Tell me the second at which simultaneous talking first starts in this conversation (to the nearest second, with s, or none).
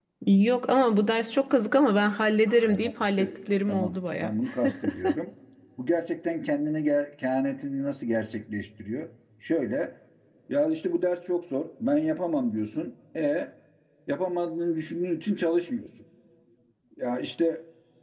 3 s